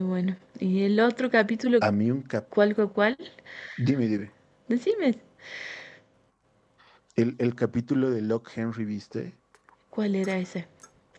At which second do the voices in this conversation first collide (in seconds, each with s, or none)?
none